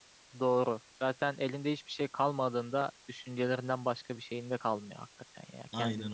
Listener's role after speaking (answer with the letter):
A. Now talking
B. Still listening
B